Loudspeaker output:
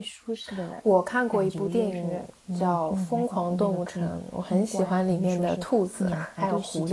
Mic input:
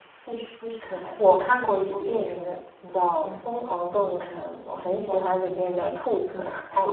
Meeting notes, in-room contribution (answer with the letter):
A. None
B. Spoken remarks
A